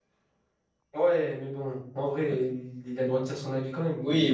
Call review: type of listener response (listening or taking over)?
taking over